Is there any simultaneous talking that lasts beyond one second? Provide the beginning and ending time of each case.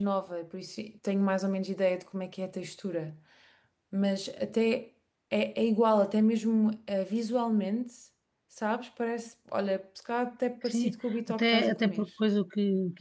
10.6-12.0

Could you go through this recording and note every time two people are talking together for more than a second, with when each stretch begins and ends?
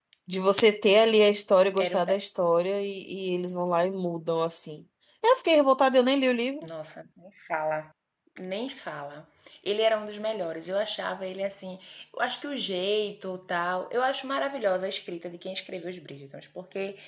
none

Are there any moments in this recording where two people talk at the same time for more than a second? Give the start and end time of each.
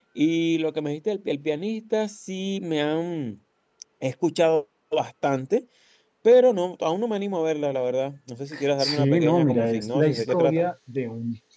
8.8-10.7

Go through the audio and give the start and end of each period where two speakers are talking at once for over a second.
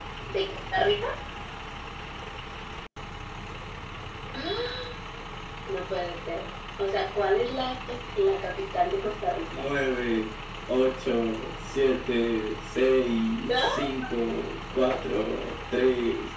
none

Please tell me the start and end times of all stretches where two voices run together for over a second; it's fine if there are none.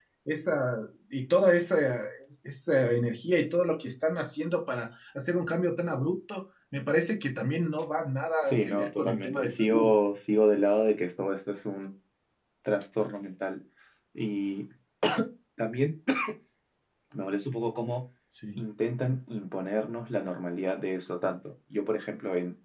8.4-9.9

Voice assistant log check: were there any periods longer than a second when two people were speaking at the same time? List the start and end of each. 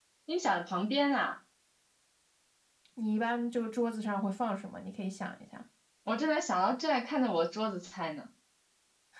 none

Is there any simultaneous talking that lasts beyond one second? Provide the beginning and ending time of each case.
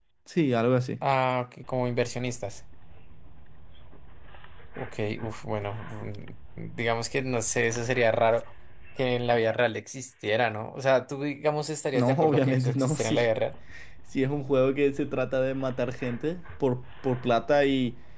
11.9-13.3

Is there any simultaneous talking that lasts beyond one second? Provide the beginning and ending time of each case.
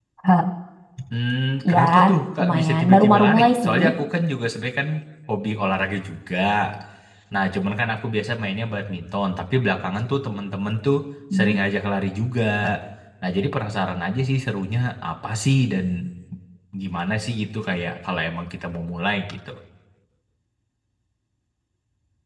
2.4-3.8

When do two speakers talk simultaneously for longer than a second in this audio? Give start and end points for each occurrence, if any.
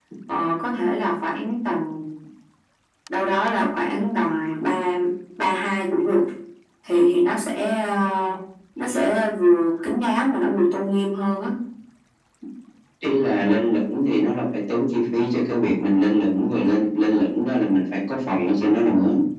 none

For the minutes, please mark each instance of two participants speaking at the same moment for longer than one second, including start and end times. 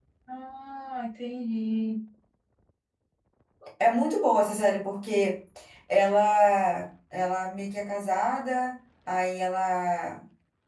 none

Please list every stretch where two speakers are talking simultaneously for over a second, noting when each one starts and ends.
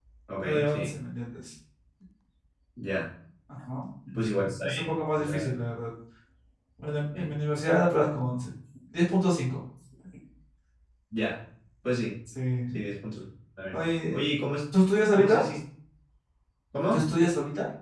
4.2-5.5

